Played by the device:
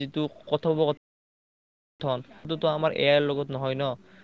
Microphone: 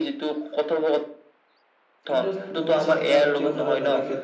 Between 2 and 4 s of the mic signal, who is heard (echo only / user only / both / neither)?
both